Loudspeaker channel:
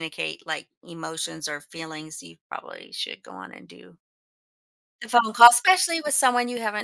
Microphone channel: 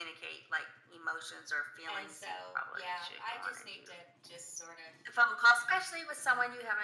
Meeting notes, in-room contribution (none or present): present